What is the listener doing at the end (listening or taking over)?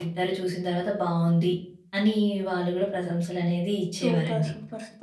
taking over